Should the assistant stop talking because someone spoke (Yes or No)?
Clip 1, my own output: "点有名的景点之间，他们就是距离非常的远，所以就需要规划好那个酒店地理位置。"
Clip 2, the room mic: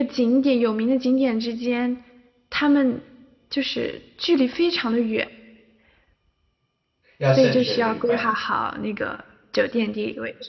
Yes